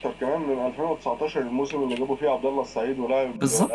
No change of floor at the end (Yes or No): No